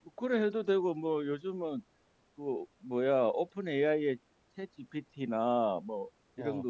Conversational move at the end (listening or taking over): listening